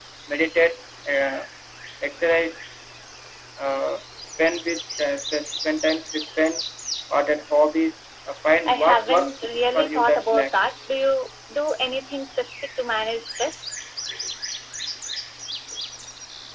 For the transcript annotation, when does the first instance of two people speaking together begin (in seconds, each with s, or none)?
8.7 s